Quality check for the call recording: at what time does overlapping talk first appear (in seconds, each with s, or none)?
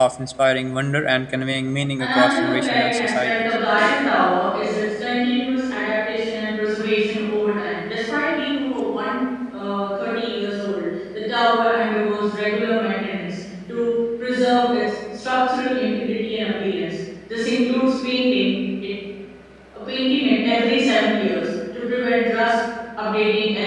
2.0 s